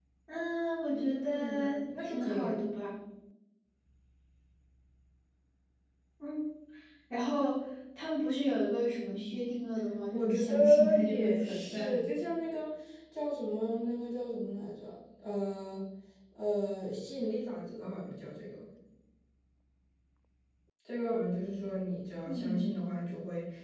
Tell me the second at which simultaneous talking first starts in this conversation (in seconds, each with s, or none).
0.9 s